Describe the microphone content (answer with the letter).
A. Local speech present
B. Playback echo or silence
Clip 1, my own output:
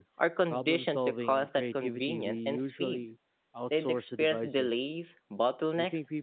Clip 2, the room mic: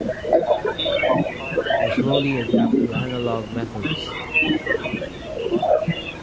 A